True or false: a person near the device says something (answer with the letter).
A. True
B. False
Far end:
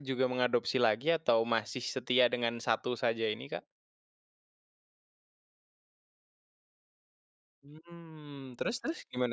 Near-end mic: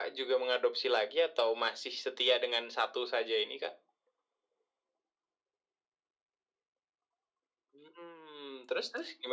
B